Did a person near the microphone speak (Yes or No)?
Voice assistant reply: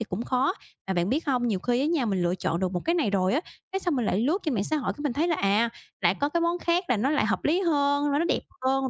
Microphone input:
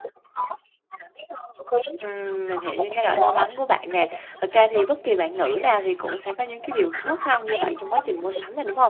Yes